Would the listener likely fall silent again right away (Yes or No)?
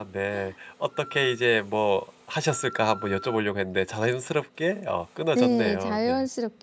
No